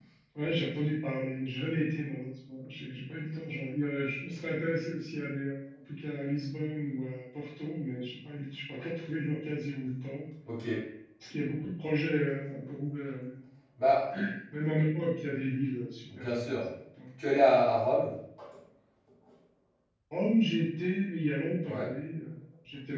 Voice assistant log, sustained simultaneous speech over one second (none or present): none